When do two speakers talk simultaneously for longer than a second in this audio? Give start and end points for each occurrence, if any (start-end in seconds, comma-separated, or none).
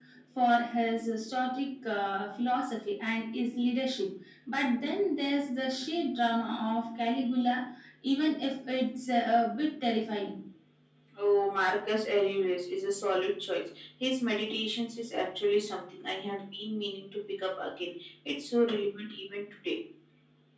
none